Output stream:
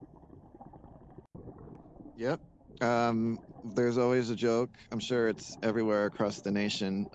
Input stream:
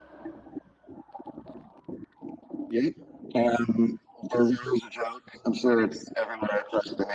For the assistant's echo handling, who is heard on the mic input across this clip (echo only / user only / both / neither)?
echo only